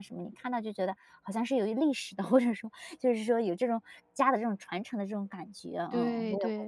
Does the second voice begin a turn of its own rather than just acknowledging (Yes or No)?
Yes